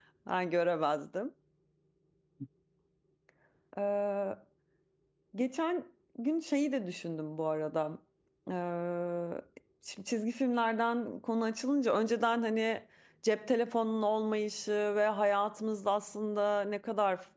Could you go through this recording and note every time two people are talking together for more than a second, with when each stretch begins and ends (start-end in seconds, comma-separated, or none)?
none